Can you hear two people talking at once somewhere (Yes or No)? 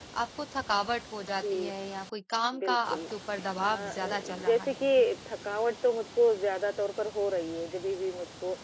Yes